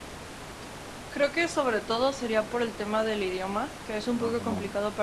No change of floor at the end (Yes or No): Yes